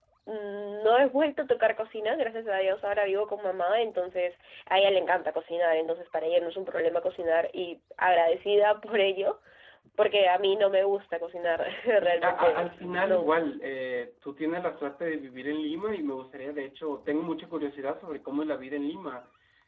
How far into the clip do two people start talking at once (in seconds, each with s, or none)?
12.0 s